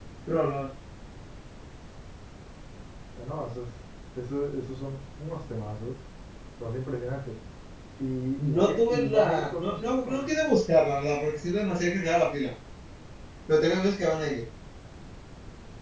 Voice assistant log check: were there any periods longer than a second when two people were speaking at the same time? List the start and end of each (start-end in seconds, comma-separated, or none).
8.4-10.3